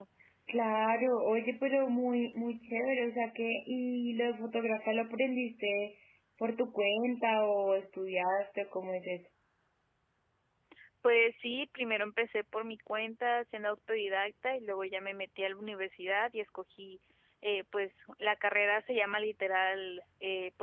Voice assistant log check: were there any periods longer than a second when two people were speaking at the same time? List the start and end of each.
none

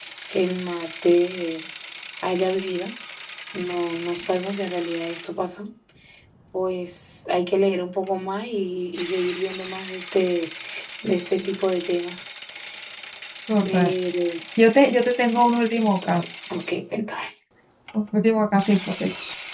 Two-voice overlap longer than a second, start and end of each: none

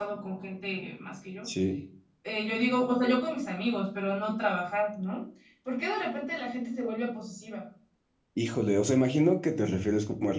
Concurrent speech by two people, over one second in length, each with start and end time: none

